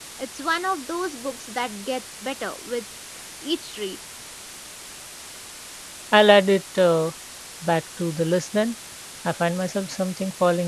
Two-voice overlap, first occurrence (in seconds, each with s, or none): none